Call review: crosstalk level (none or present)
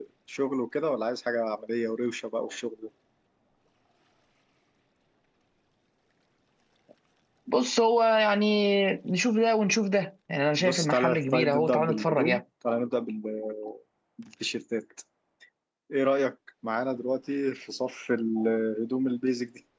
present